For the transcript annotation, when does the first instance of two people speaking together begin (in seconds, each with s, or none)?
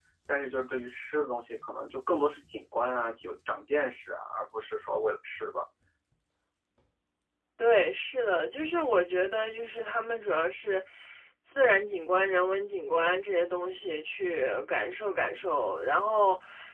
none